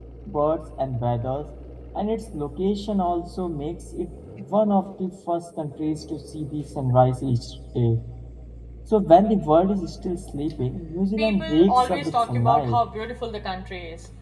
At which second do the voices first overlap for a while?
11 s

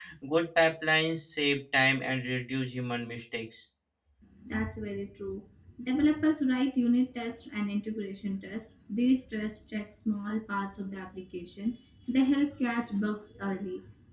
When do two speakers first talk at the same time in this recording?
none

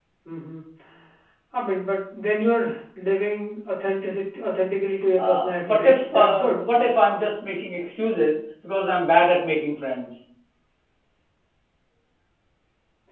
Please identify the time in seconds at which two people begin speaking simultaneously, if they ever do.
5 s

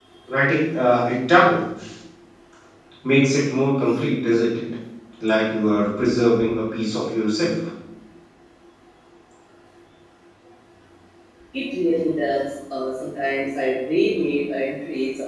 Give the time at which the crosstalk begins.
none

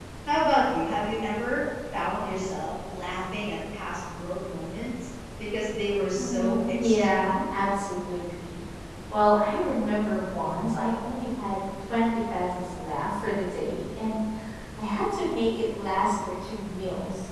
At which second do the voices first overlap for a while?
6 s

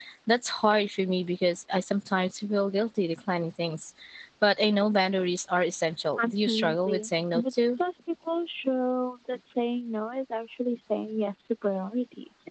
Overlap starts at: 6 s

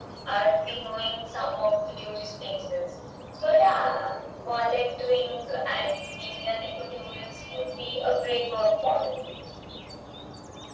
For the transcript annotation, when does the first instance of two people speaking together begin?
none

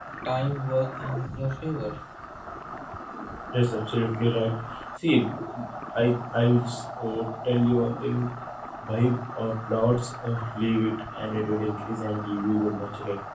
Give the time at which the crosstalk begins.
none

